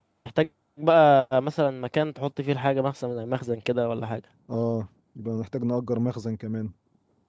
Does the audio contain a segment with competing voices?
No

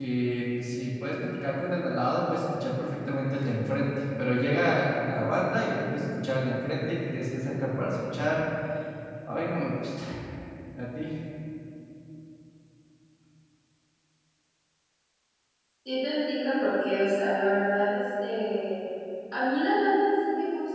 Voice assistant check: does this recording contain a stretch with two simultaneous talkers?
No

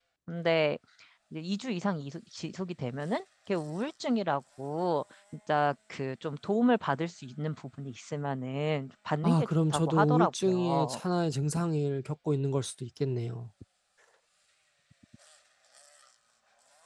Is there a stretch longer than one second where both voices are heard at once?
Yes, from 9.2 s

